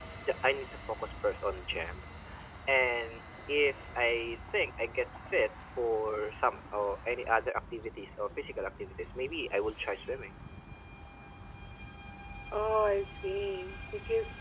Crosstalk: none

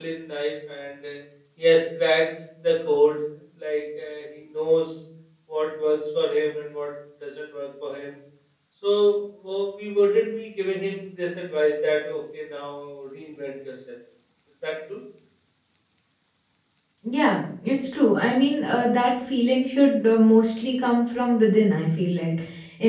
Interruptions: none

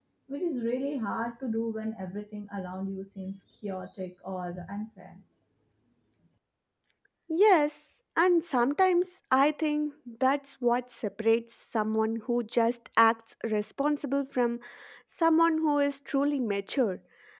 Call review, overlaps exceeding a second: none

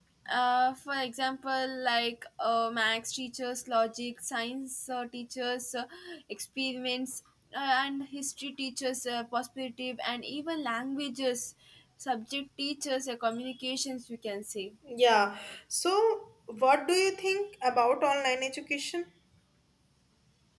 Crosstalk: none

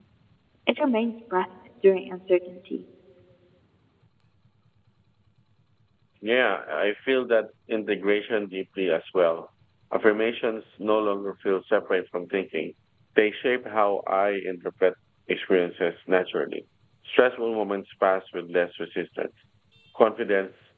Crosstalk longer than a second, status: none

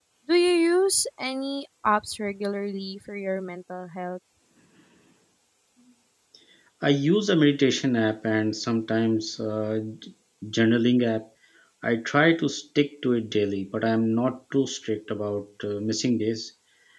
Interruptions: none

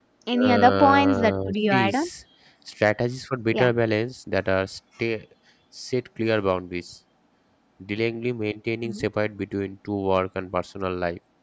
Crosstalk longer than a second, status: present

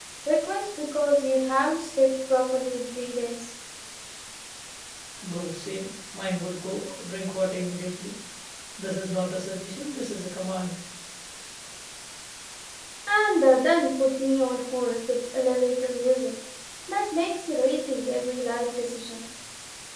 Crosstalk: none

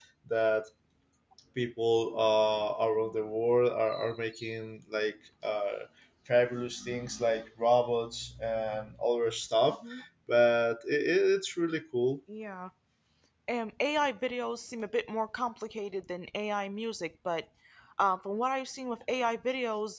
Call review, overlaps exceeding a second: none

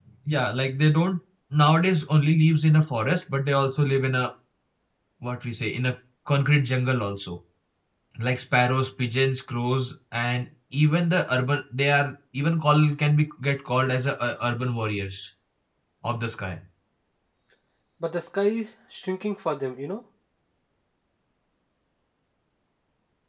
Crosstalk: none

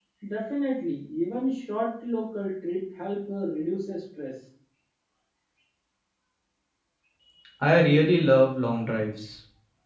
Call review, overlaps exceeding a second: none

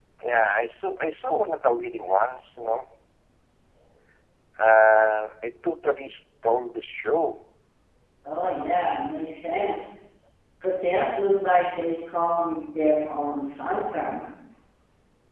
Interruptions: none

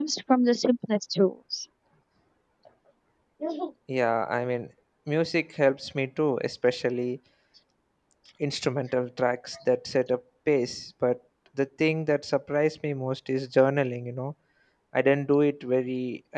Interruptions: none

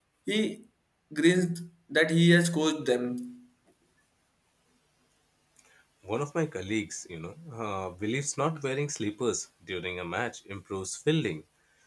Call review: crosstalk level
none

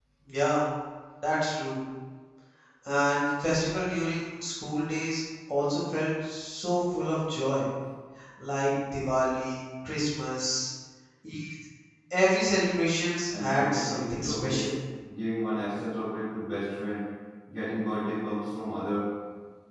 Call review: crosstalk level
present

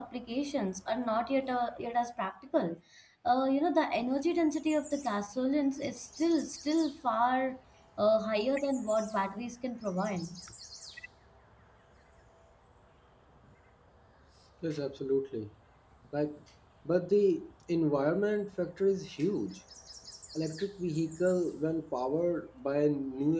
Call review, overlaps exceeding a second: none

